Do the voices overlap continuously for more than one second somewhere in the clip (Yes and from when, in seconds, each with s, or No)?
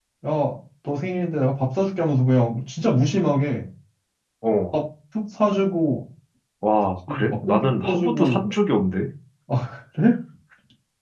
Yes, from 7.1 s